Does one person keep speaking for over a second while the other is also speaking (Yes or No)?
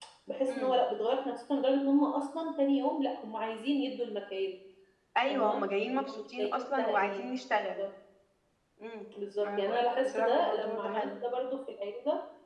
Yes